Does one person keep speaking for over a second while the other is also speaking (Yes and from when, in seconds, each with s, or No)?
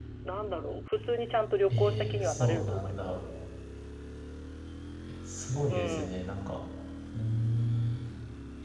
Yes, from 1.7 s